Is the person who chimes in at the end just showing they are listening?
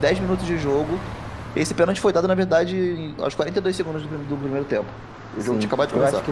No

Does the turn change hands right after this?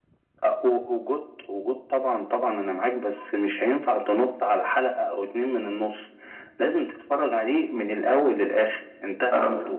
Yes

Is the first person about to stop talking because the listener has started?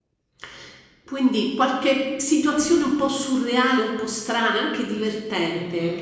Yes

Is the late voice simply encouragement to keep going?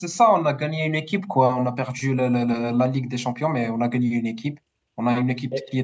Yes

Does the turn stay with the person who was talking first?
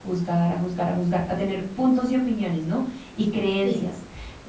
Yes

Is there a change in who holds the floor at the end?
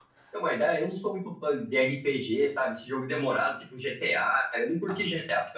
No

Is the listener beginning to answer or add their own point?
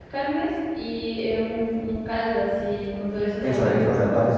Yes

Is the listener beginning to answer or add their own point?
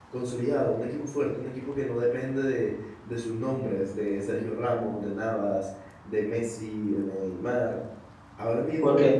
No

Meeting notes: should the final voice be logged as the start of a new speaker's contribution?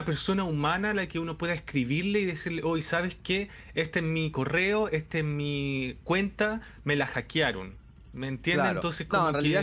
Yes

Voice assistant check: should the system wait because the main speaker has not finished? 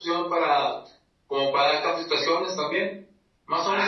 Yes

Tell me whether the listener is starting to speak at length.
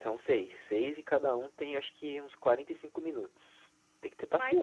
Yes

